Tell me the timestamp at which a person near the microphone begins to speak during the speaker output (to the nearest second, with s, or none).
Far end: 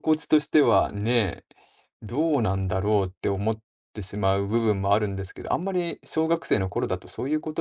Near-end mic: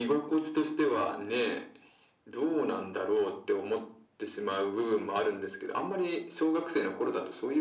none